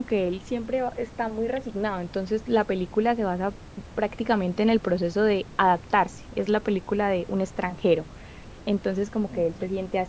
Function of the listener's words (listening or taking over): listening